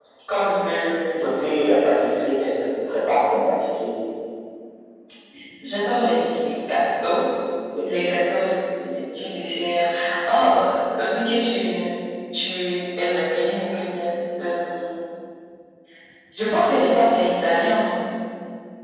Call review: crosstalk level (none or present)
none